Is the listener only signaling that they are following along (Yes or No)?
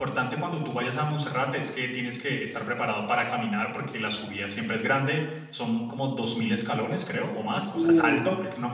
Yes